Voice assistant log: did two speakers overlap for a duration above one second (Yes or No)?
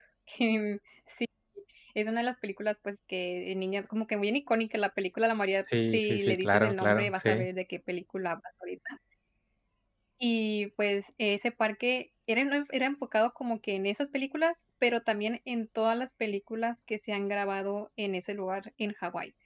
Yes